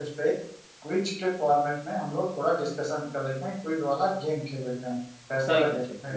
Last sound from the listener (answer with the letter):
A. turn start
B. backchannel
A